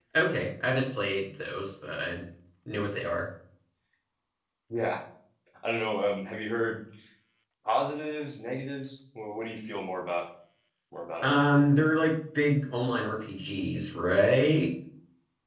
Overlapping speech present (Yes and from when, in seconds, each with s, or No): No